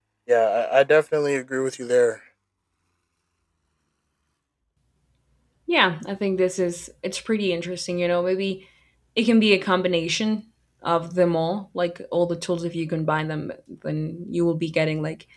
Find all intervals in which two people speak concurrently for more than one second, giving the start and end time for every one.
none

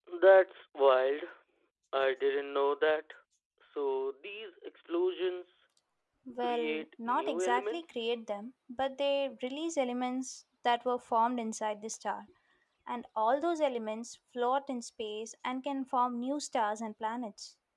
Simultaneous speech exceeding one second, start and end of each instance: 6.4-8.0

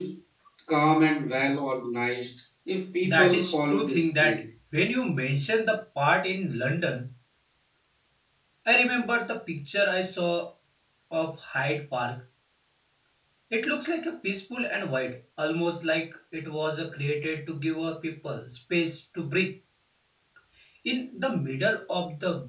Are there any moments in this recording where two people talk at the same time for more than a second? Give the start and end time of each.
3.0-4.4

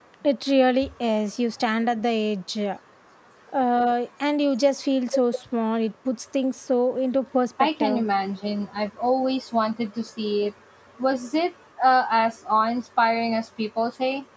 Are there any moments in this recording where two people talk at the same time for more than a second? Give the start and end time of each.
none

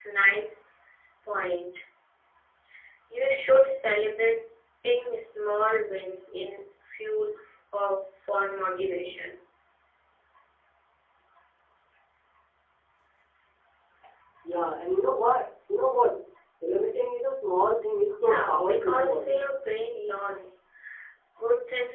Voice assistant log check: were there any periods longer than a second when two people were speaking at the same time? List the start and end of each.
18.2-19.5

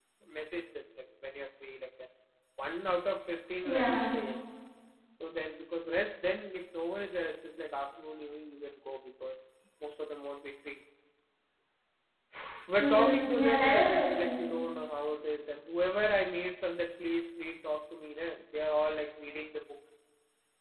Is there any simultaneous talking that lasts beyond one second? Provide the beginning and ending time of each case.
12.8-14.4

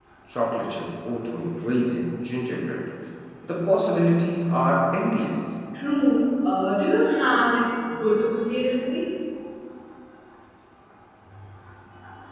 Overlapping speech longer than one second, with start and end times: none

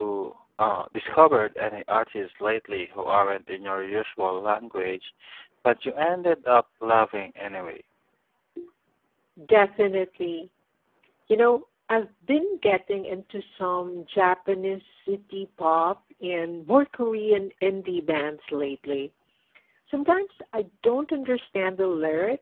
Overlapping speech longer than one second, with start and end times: none

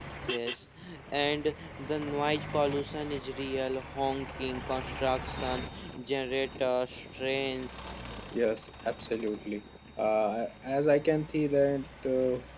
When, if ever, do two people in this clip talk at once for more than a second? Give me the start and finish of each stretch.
none

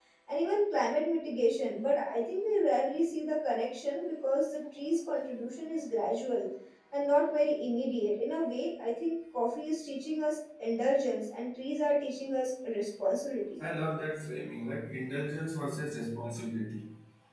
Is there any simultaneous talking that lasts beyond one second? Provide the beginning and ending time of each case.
none

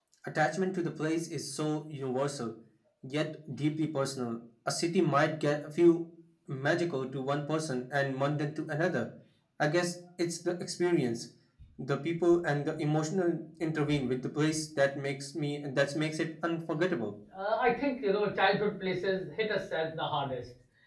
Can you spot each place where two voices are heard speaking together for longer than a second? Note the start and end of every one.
none

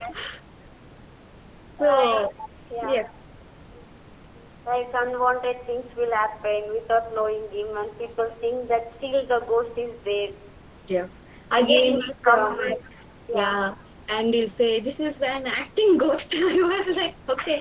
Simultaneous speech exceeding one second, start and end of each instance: 11.5-12.7

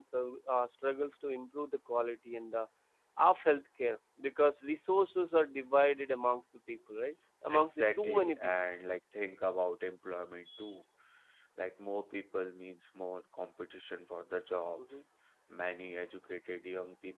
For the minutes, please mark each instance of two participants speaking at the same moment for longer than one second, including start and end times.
7.5-8.8

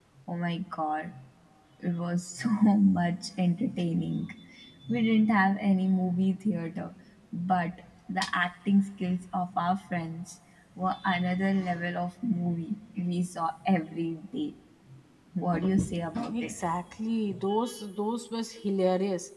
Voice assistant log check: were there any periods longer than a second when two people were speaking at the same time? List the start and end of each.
none

